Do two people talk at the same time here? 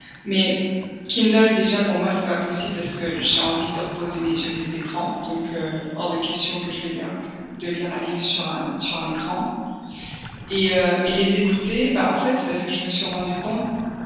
No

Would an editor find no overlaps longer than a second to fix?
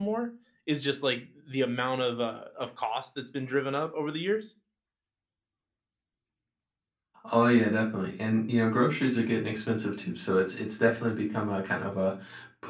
Yes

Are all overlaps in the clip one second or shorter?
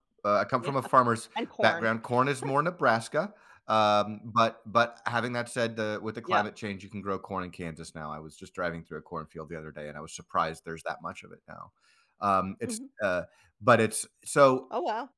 Yes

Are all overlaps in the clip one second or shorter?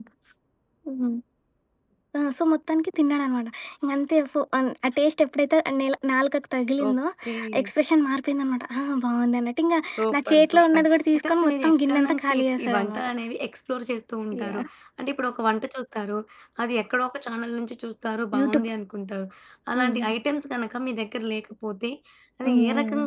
No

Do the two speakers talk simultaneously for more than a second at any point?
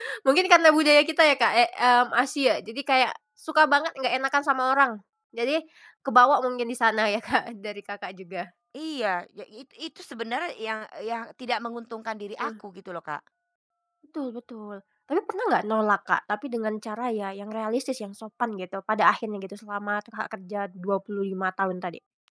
No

